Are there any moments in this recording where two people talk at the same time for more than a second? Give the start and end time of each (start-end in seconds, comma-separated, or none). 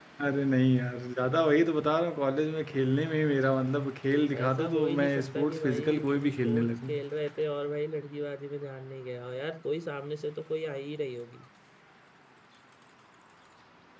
4.4-6.9